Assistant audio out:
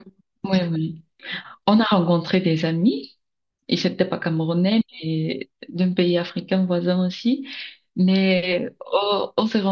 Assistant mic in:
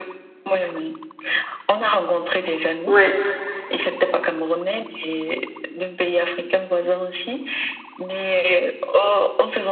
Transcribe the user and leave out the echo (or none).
Ouais,